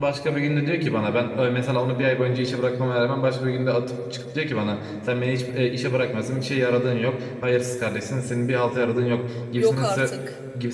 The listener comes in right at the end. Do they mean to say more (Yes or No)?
No